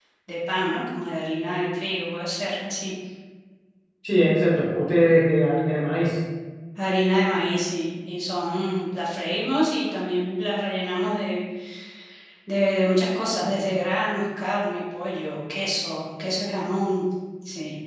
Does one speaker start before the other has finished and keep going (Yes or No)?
No